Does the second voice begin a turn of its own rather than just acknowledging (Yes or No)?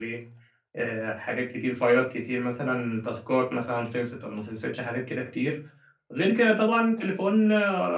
No